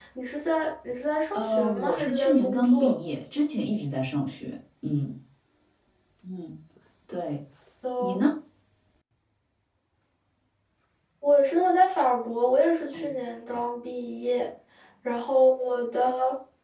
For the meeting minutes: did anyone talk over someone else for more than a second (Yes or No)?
Yes